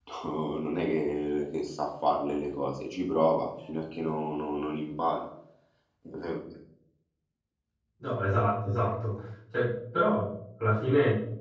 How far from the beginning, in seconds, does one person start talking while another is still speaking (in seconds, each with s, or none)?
none